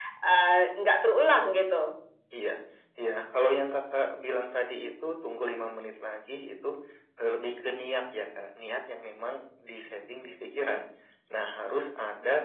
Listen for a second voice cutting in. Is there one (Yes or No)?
No